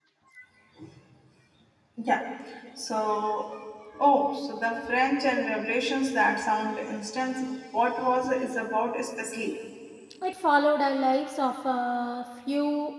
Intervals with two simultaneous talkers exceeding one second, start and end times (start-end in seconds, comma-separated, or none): none